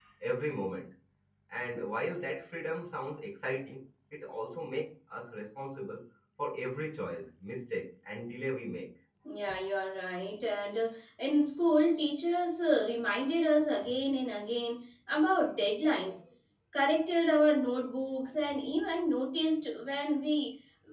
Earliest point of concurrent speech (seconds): none

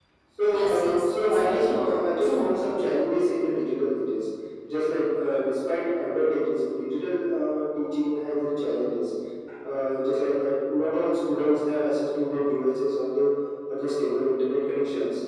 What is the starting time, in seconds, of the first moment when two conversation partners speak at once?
0.5 s

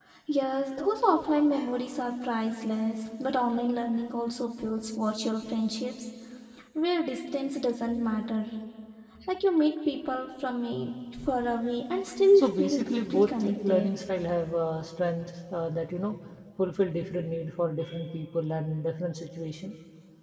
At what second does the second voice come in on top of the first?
12.3 s

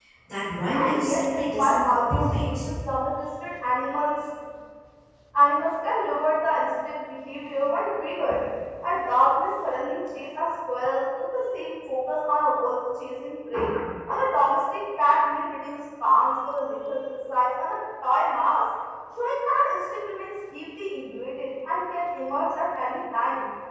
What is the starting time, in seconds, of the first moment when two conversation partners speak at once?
0.7 s

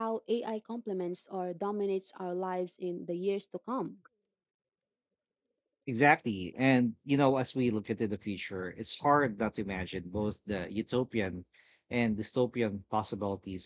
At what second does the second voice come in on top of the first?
none

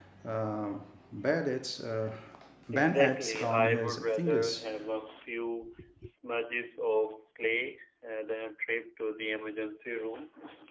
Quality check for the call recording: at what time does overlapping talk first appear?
2.7 s

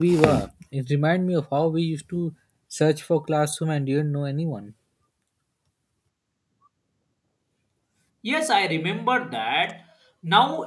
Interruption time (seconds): none

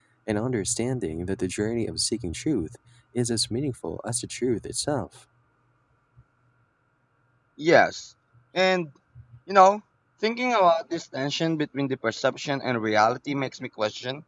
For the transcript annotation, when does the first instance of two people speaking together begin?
none

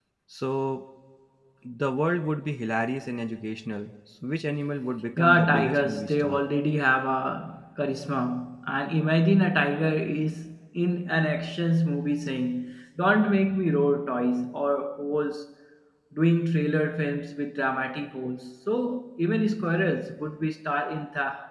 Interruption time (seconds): 5.2 s

